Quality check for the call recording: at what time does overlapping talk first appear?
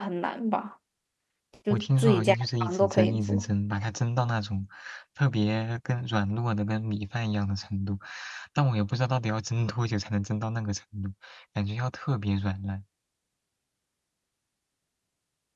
2 s

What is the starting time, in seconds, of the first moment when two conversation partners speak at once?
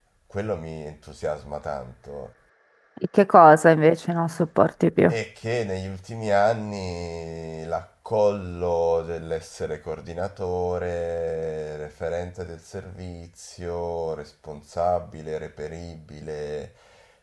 none

